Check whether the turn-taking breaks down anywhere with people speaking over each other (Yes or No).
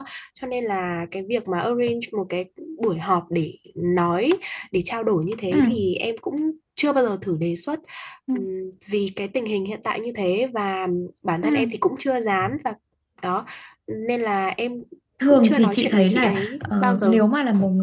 Yes